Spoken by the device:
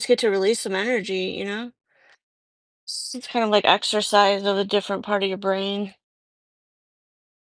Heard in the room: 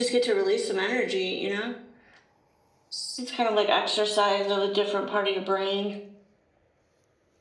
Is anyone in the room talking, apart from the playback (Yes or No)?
No